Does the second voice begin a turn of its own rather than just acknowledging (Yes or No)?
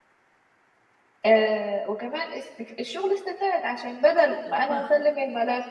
No